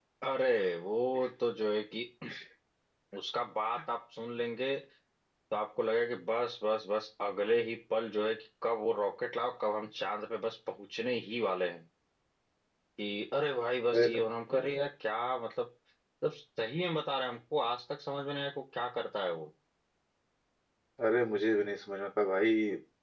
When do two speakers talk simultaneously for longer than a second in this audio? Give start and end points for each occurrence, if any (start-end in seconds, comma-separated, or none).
none